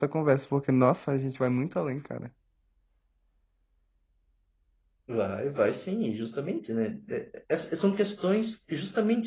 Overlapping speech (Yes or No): No